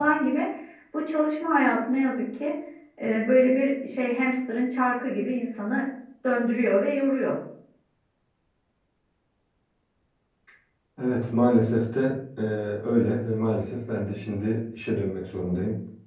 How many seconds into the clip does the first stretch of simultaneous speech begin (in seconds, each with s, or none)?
none